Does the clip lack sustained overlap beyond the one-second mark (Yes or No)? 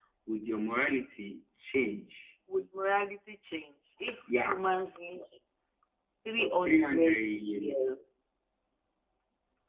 No